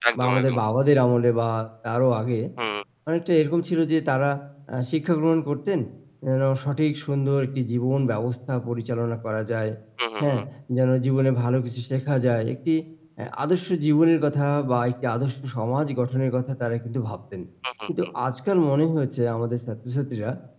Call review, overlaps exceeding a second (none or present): none